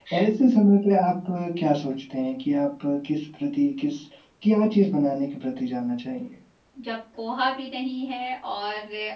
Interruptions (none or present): none